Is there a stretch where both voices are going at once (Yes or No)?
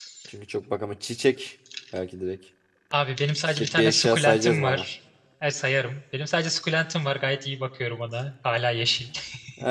Yes